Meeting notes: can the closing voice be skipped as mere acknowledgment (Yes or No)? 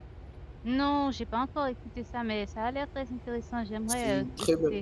No